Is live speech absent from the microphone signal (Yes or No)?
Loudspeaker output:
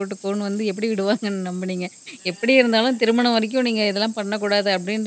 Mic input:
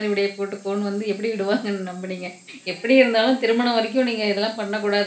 Yes